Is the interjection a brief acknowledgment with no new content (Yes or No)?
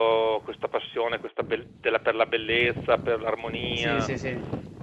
No